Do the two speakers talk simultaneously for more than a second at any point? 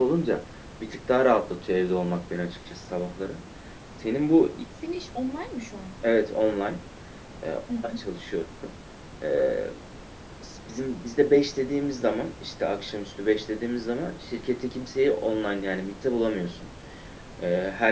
No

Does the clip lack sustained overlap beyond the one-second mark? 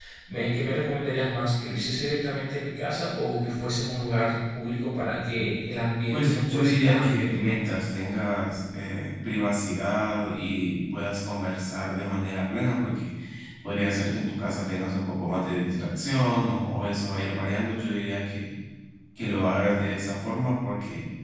No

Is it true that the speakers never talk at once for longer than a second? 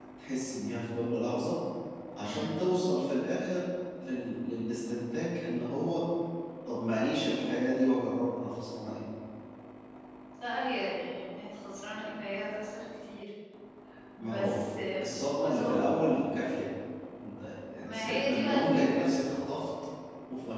No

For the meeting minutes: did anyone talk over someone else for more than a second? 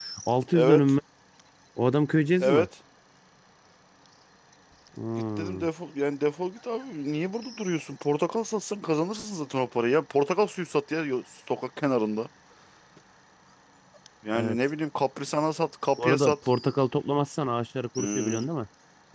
No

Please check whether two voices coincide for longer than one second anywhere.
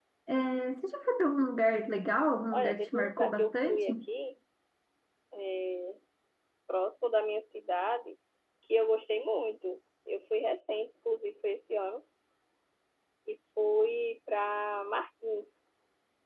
Yes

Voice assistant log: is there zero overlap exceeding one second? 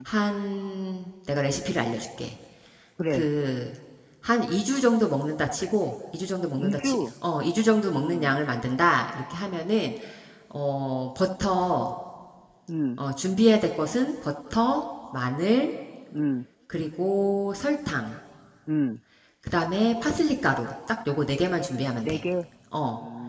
Yes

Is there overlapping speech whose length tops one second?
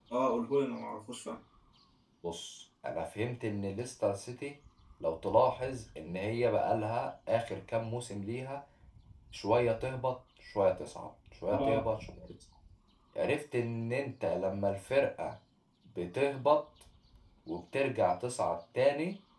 No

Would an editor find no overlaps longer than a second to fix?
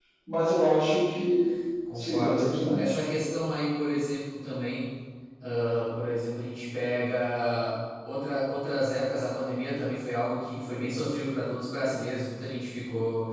Yes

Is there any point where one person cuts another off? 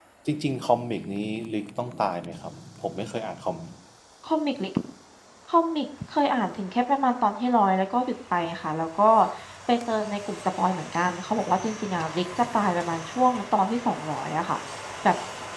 No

